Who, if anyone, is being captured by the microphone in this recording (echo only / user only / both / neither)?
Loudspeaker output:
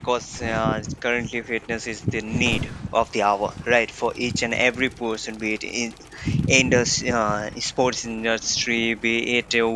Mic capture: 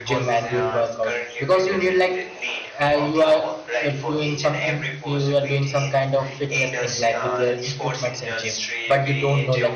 both